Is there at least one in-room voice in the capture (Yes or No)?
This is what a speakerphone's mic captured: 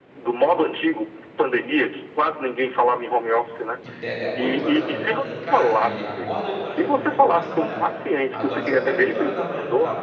Yes